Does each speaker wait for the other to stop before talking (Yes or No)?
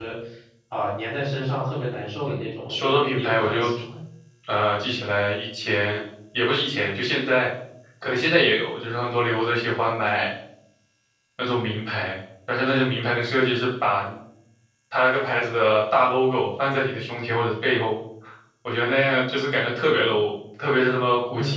No